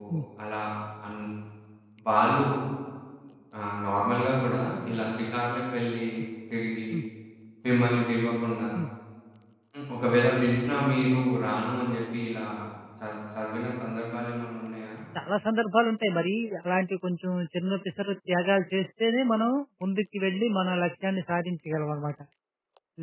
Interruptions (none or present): none